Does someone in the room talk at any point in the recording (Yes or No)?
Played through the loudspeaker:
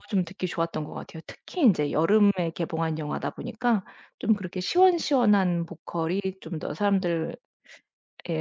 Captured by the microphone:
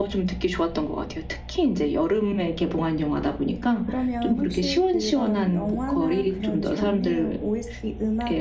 Yes